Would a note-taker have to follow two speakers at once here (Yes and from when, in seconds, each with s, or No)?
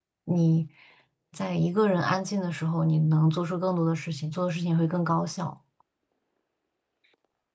No